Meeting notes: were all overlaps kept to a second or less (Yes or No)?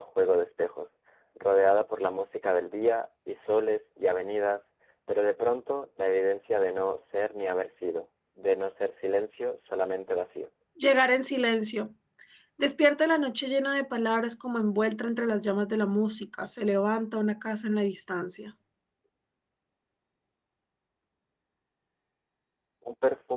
Yes